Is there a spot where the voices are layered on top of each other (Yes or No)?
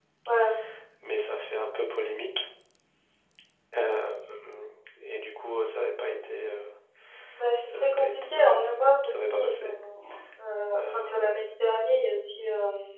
Yes